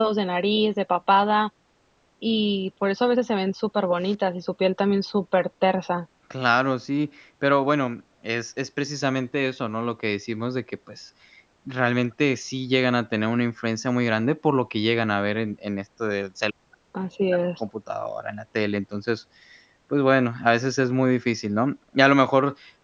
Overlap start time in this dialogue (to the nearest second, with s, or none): none